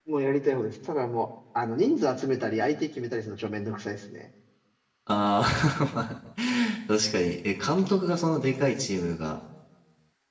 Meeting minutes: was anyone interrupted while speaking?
No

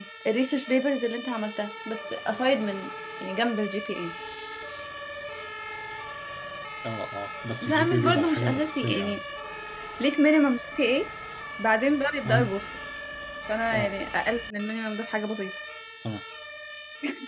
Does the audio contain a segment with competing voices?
Yes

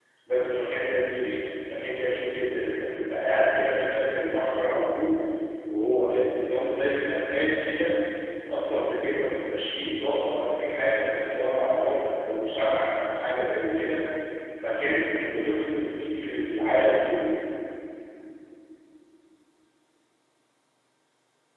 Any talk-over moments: No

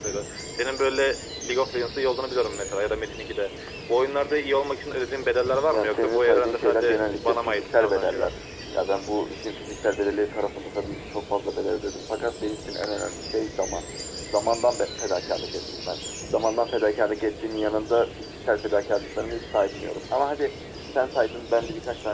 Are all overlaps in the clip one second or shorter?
No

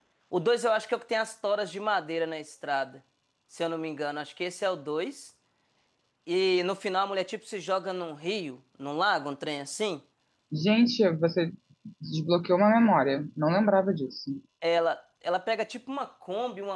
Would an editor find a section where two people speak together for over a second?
No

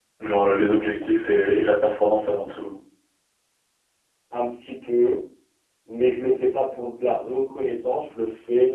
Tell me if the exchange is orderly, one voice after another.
Yes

